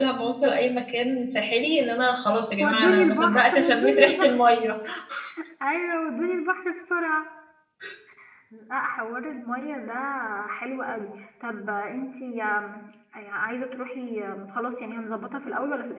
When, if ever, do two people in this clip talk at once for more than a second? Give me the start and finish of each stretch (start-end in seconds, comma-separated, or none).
2.6-4.4